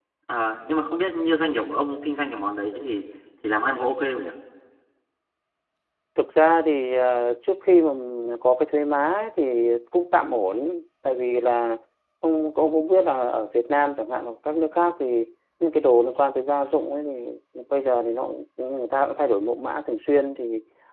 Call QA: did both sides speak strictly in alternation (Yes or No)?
Yes